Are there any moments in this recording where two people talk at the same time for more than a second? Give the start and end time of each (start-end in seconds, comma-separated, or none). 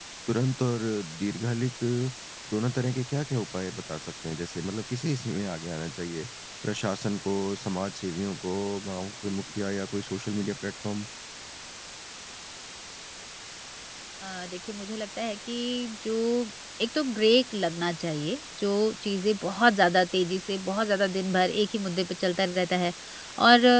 none